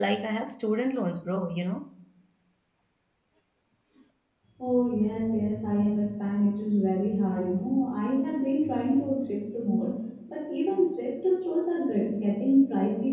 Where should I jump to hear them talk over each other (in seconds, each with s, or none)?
none